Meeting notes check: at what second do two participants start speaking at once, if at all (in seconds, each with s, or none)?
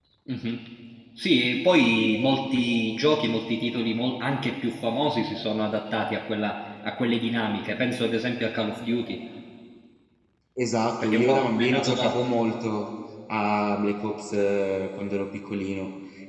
11.0 s